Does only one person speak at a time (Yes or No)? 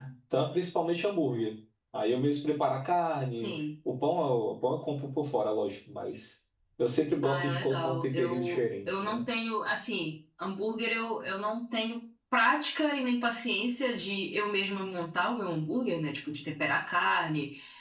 No